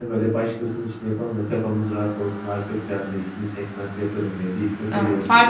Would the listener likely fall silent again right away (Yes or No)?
No